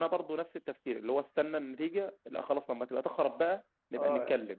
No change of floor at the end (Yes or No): No